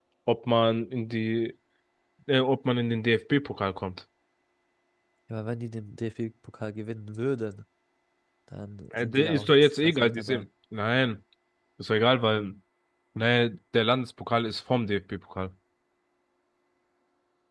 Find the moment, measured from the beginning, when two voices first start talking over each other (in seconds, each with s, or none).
8.9 s